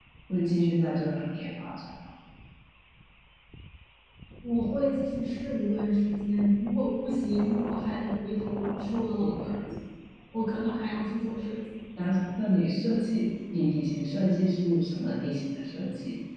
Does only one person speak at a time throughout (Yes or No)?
Yes